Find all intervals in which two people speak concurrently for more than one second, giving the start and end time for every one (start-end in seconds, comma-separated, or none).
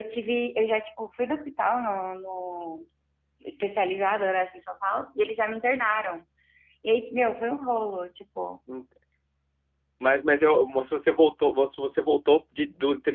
none